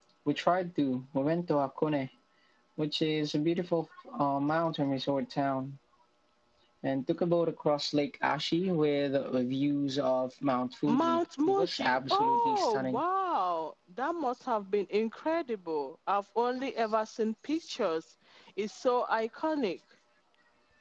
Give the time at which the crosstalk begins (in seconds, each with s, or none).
10.9 s